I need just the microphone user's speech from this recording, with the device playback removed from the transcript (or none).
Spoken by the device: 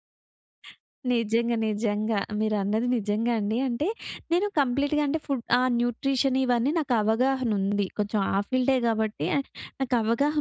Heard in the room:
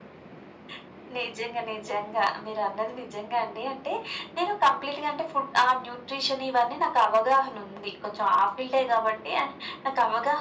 none